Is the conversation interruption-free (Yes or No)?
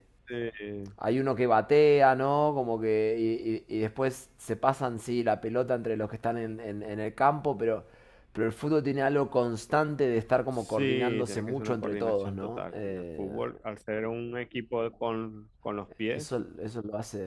No